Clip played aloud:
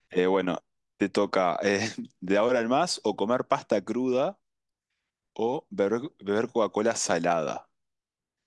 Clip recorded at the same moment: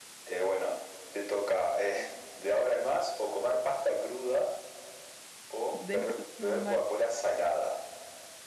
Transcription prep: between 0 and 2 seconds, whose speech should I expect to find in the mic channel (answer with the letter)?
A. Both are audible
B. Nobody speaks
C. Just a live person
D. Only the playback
D